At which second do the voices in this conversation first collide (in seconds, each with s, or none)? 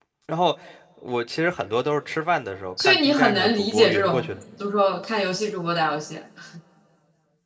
2.8 s